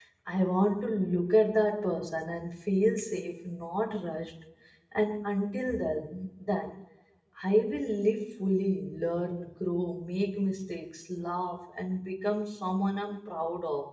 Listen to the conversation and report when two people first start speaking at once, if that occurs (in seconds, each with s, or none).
none